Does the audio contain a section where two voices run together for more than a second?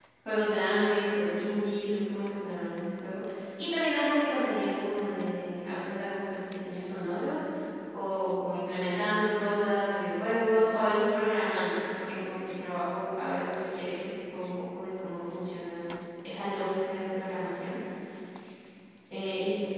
No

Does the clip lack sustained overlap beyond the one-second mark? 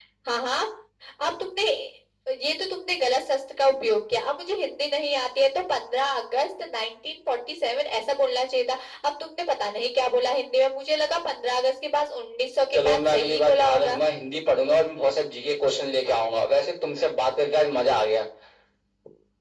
No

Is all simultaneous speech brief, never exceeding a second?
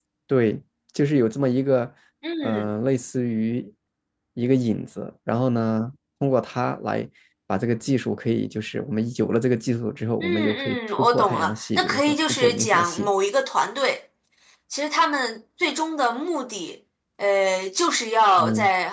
No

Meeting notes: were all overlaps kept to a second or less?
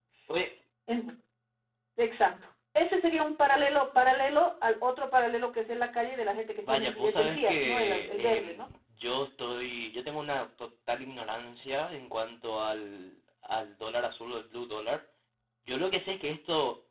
No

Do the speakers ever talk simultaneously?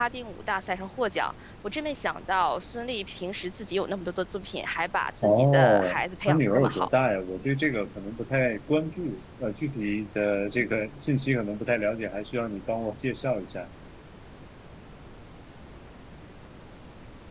Yes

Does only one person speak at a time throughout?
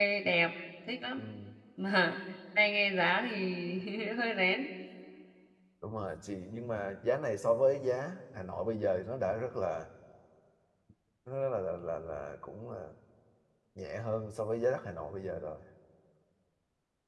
Yes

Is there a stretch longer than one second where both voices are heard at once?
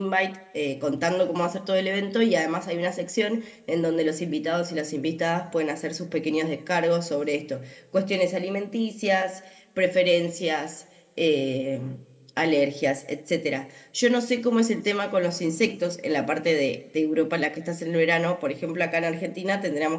No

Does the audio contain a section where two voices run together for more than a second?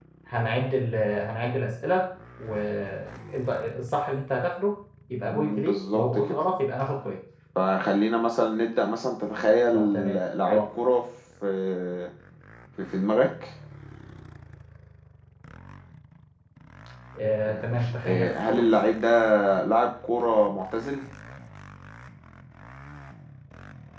Yes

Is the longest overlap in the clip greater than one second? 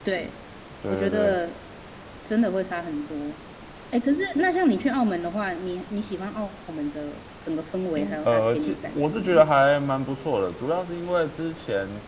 Yes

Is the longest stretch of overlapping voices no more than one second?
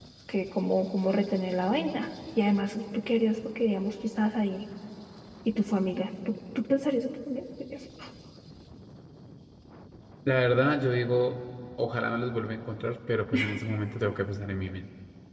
Yes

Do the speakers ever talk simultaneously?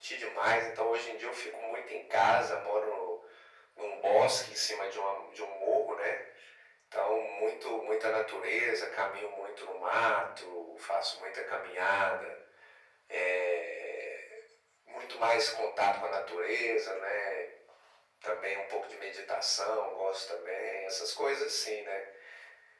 No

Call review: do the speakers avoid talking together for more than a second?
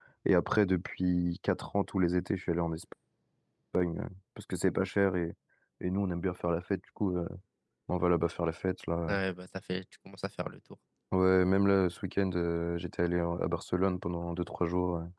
Yes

